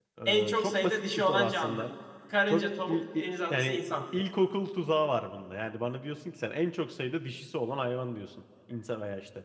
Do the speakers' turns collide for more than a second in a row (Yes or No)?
Yes